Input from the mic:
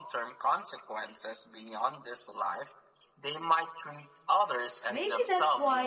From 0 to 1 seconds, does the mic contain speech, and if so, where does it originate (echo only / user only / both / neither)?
echo only